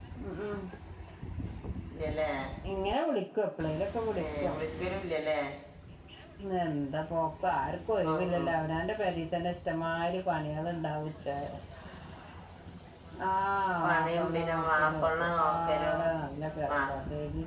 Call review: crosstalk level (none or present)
present